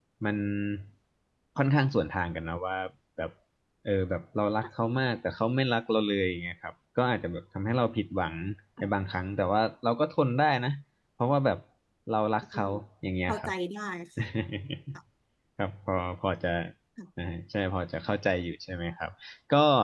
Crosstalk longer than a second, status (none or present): none